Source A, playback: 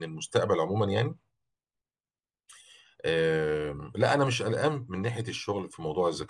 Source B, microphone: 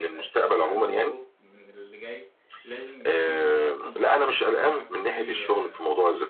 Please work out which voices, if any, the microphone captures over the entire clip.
both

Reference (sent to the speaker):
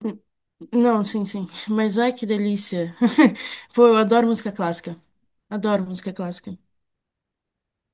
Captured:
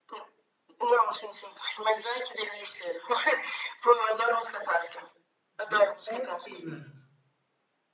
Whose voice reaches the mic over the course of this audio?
both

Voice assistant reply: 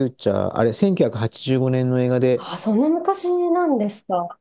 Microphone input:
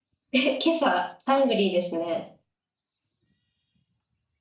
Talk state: user only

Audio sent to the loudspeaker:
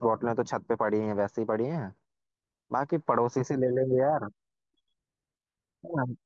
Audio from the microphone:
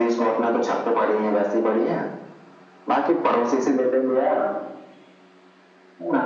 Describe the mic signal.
echo only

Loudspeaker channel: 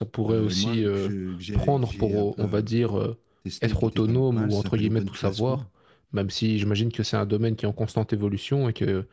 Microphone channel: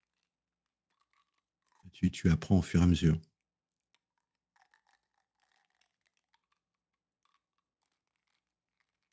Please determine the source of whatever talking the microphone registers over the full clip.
user only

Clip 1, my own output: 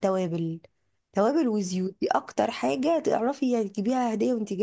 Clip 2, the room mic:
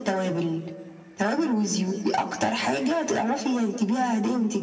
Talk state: echo only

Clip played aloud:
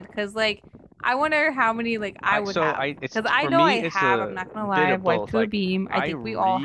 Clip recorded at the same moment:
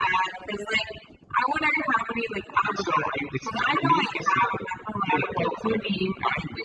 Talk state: echo only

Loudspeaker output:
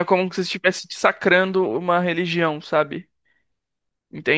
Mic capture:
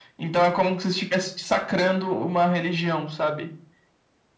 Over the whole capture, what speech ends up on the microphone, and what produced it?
echo only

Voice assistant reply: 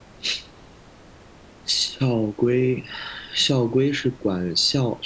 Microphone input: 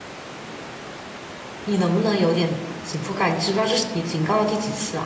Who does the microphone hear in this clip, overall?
user only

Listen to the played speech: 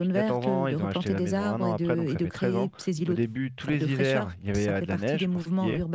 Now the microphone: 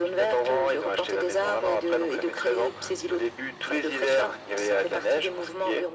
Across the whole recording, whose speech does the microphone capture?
echo only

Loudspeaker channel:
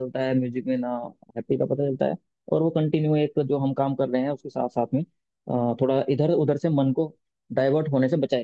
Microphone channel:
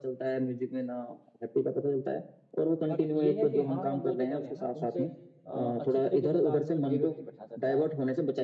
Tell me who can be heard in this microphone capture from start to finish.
both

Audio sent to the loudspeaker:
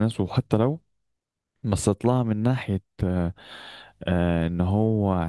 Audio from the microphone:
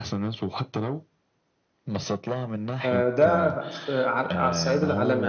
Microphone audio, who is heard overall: both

